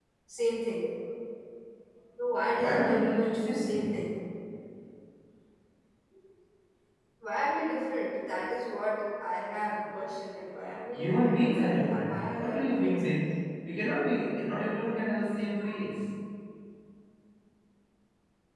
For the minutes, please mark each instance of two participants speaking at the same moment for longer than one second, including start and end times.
2.5-4.0, 10.9-13.1

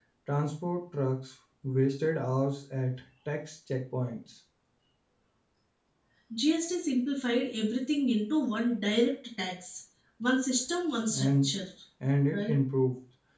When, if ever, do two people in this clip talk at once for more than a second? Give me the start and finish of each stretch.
none

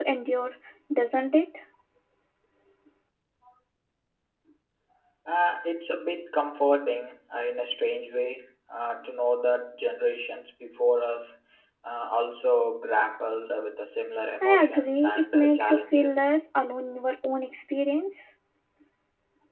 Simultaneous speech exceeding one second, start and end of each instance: 14.4-16.2

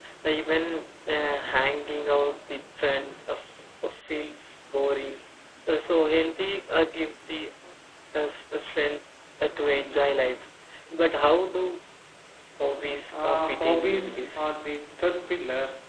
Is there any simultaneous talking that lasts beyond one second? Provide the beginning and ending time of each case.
13.2-14.5

